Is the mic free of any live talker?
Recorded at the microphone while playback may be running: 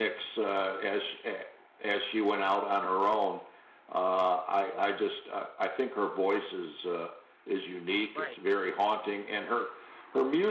No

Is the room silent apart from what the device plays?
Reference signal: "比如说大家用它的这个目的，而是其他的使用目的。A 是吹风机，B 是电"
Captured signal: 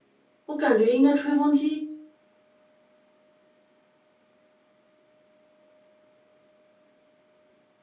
No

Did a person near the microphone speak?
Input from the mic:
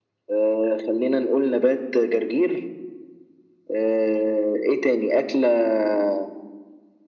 No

